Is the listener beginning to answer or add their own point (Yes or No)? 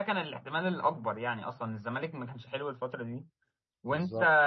No